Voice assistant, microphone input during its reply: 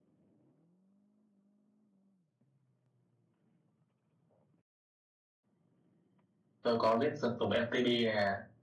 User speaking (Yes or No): Yes